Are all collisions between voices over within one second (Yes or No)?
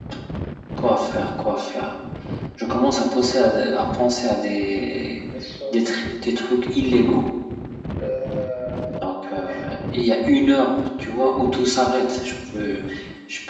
Yes